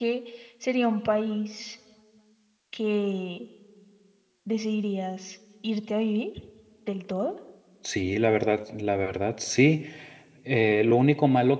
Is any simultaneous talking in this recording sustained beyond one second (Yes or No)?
No